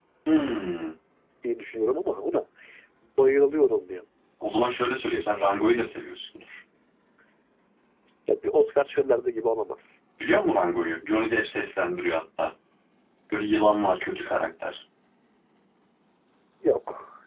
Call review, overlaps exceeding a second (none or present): none